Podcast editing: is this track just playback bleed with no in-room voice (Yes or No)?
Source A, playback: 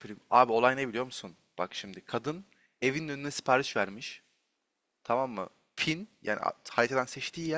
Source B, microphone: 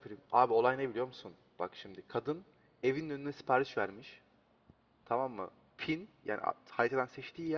Yes